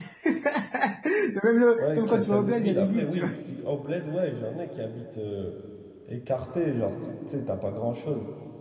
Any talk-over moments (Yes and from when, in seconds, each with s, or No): Yes, from 1.8 s